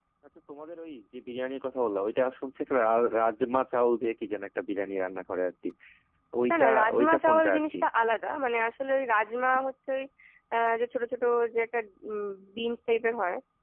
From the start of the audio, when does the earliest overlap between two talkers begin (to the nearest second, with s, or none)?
6 s